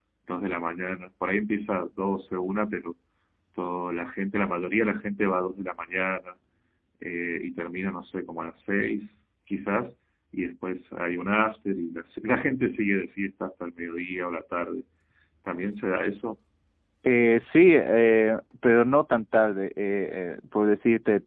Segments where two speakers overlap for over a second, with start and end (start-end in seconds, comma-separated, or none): none